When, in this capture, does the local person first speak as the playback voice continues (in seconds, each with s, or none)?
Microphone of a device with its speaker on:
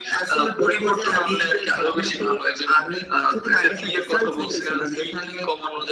none